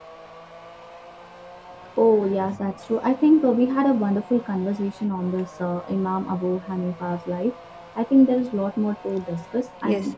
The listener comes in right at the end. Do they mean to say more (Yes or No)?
No